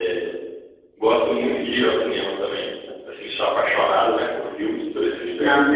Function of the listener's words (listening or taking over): taking over